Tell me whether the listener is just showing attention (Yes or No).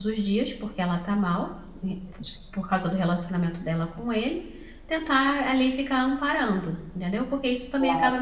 No